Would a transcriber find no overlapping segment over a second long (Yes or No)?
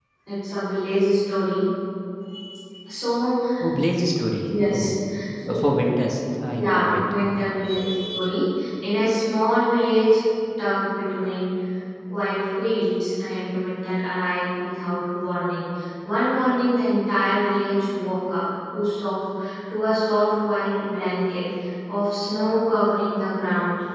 Yes